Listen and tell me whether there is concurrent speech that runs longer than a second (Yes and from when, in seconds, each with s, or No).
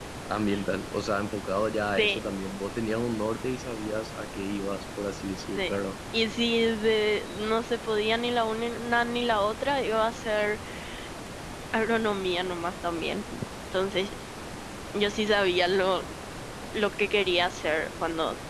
No